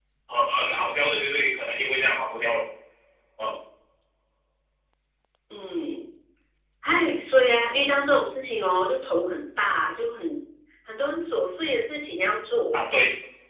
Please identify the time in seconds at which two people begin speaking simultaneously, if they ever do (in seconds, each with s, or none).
none